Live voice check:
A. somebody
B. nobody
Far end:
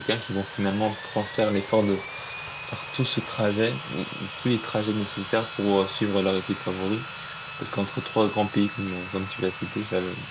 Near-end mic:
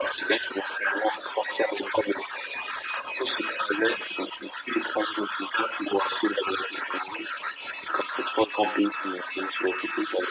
B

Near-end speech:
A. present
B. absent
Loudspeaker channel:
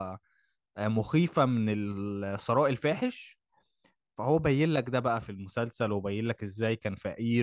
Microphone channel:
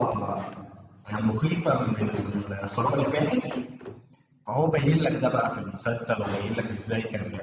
B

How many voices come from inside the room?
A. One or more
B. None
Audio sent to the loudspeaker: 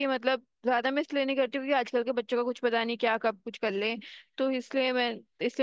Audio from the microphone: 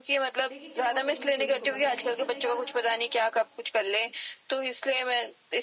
A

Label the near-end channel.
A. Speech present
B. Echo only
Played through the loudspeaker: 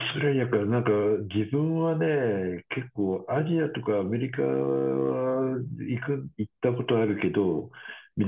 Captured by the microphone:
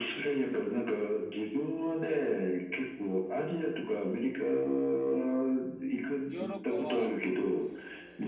A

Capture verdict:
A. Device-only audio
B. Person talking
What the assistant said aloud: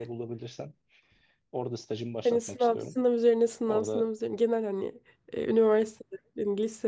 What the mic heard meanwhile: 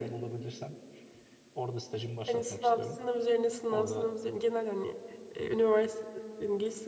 A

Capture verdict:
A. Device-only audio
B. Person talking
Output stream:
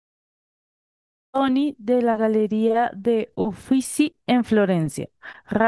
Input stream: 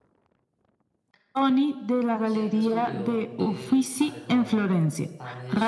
B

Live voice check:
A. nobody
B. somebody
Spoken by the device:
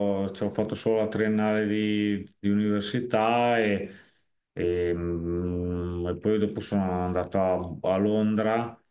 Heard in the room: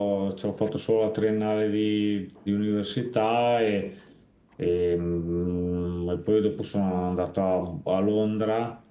A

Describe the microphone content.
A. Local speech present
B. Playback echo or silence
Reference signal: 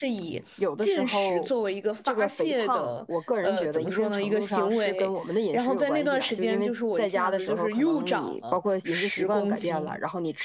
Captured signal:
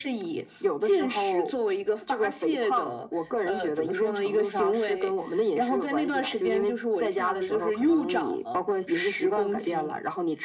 B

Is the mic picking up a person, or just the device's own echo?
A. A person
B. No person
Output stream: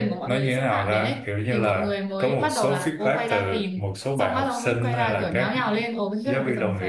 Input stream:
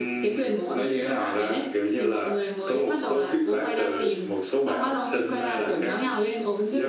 B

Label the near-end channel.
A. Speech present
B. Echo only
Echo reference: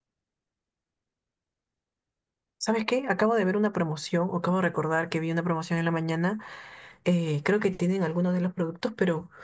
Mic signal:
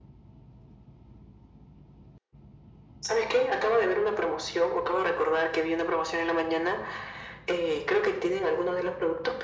B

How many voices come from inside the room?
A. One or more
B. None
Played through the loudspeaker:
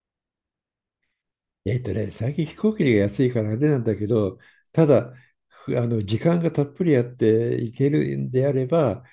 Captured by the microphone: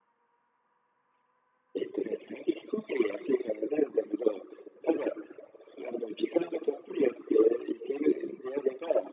B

